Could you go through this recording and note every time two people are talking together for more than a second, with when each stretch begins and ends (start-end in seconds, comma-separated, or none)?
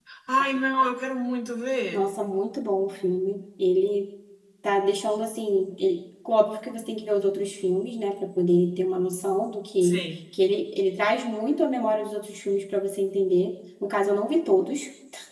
none